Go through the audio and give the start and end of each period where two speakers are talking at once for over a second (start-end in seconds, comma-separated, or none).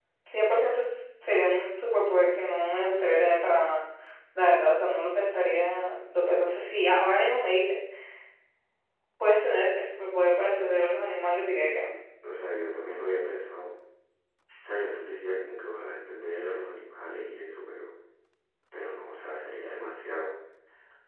none